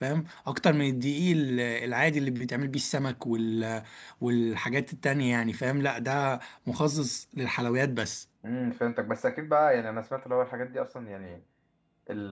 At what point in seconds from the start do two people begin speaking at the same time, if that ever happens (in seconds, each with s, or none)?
none